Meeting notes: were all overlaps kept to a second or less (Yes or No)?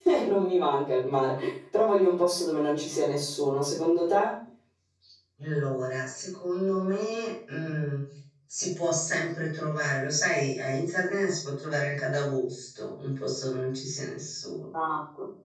Yes